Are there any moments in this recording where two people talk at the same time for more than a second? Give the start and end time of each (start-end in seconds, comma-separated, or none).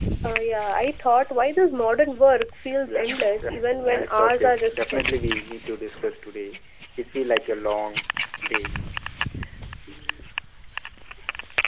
3.5-5.0